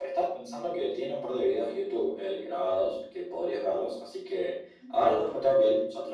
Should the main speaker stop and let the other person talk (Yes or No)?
No